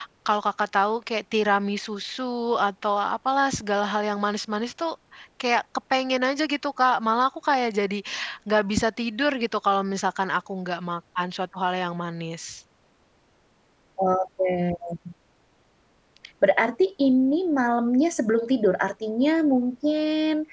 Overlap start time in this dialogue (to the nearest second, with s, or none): none